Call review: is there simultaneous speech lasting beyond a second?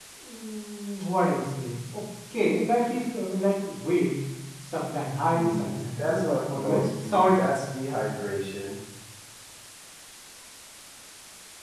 Yes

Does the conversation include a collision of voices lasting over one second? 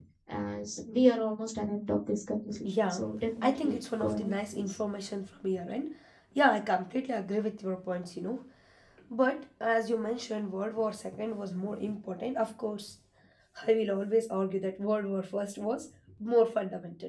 Yes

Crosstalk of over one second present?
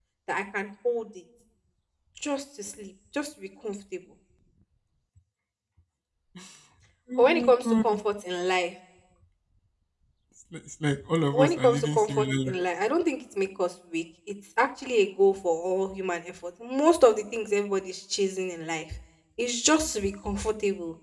Yes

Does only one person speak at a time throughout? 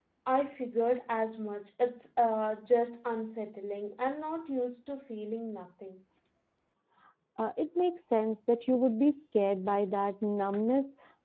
Yes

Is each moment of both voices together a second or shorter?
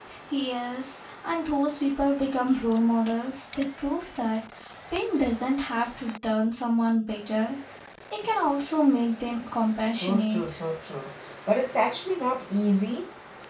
Yes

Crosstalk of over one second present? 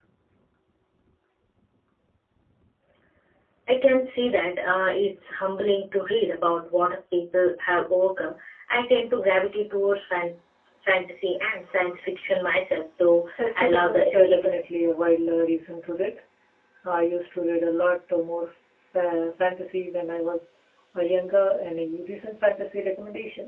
Yes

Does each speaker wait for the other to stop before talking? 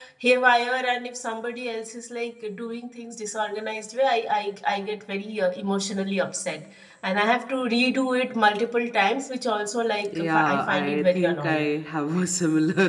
No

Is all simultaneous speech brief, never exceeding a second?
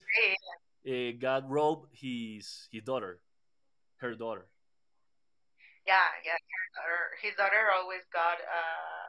Yes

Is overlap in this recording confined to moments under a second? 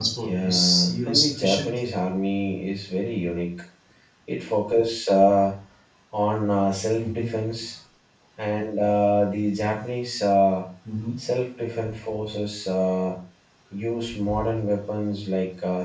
No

